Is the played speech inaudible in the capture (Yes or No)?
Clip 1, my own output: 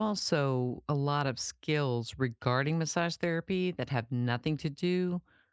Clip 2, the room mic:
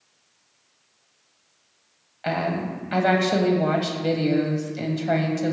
Yes